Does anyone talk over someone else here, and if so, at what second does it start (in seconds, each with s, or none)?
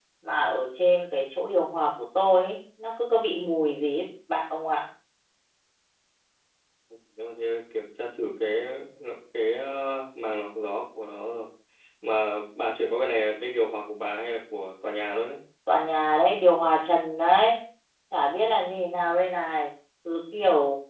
none